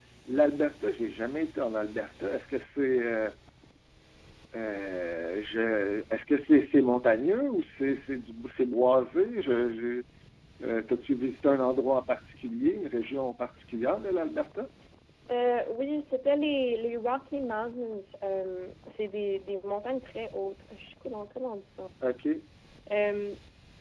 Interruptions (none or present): none